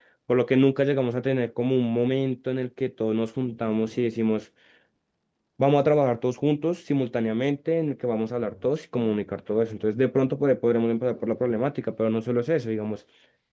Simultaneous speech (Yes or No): No